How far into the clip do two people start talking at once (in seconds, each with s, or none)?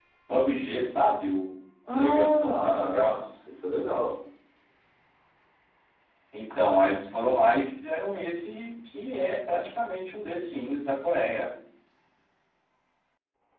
1.8 s